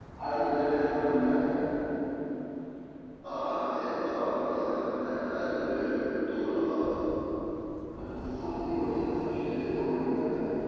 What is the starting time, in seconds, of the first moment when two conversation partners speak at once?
none

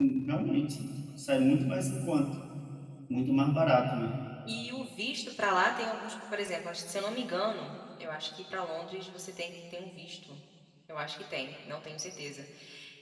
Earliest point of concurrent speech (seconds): none

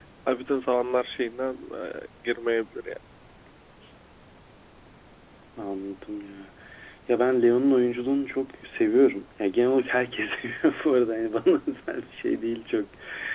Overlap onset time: none

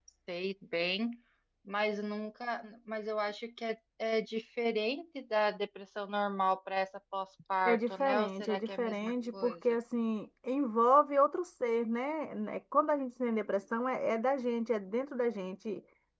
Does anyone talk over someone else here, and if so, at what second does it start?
8 s

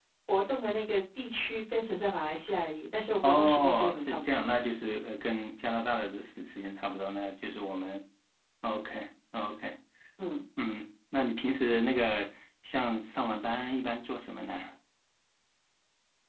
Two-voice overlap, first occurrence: 3 s

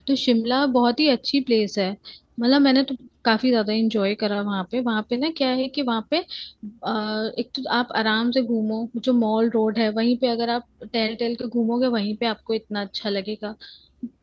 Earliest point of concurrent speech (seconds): none

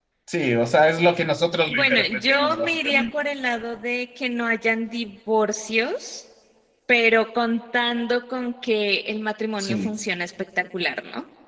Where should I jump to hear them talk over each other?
2 s

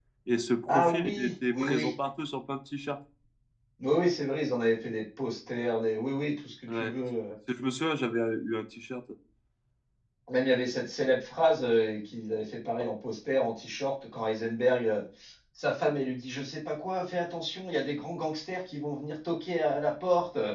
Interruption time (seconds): 1 s

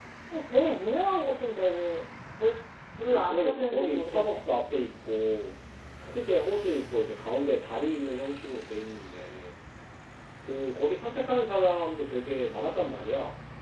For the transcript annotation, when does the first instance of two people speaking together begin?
3 s

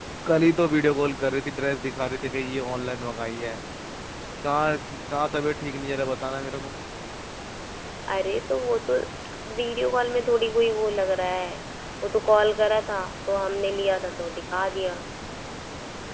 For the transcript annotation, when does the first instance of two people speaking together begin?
none

